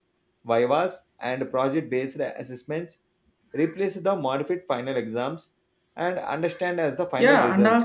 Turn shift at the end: Yes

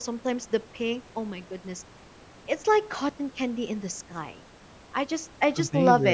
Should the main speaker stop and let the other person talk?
No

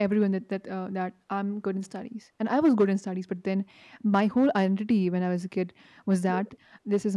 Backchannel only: Yes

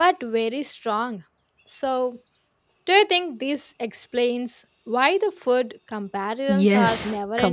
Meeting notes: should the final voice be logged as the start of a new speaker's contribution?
Yes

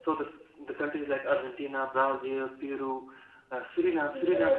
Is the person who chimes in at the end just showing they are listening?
No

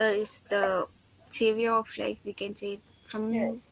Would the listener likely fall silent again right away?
Yes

